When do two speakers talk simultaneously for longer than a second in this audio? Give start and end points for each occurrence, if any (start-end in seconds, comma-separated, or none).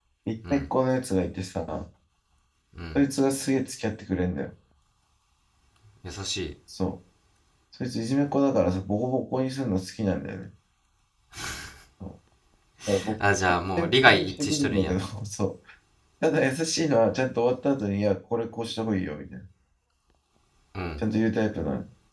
13.8-15.0